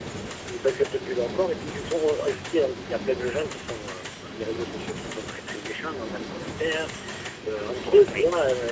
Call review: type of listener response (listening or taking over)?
listening